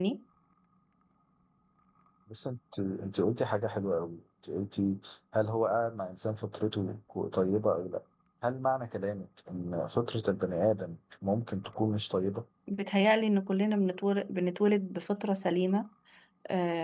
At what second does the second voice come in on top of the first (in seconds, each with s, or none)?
none